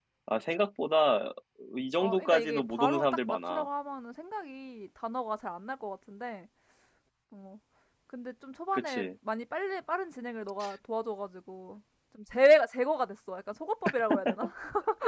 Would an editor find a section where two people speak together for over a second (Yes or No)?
Yes